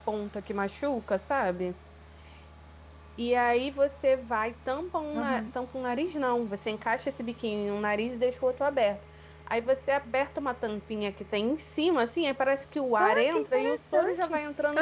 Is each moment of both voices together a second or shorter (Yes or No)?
No